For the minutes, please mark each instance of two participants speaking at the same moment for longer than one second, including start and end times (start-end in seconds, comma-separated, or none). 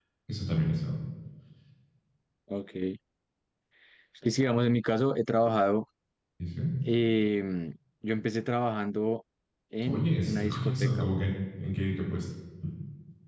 9.8-11.1